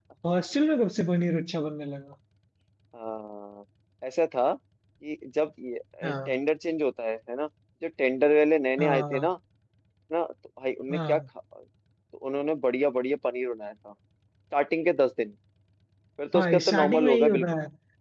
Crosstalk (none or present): present